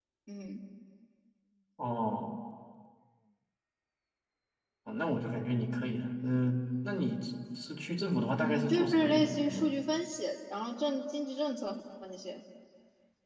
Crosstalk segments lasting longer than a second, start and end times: 8.4-9.7

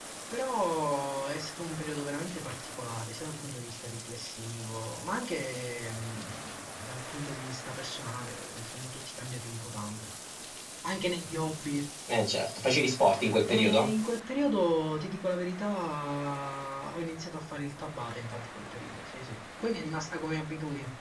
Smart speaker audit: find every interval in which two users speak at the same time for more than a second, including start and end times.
none

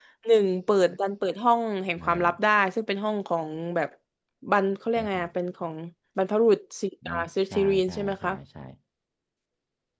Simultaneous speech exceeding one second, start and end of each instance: 7.0-8.3

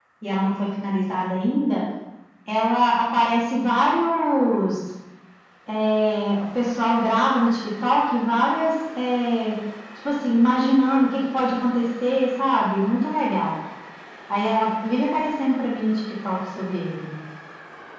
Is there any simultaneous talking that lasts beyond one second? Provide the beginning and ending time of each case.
none

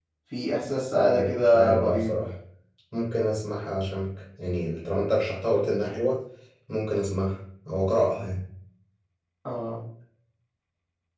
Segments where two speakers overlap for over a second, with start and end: 0.9-2.2

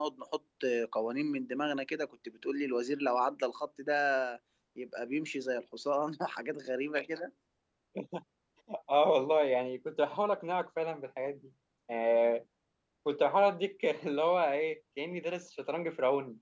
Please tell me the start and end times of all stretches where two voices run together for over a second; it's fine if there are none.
none

